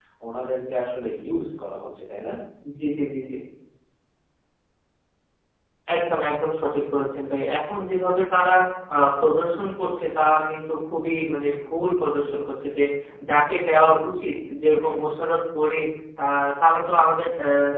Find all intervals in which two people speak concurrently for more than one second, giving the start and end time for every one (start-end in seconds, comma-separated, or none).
none